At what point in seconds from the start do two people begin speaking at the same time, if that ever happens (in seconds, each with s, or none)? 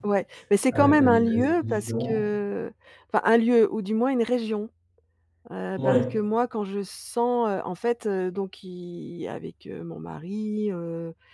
0.7 s